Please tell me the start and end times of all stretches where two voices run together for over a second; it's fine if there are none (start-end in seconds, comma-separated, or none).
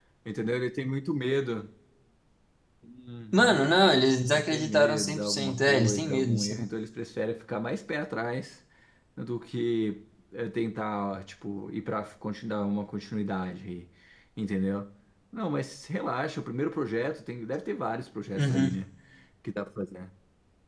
4.3-6.5